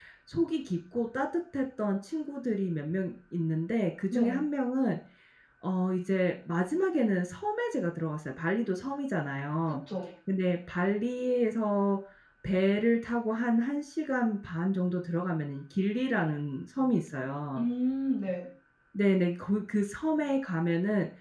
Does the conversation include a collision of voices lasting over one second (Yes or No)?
No